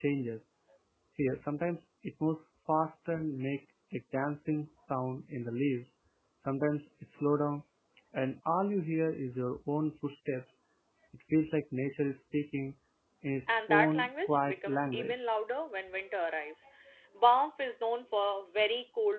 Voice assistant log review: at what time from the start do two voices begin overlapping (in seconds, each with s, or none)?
13.5 s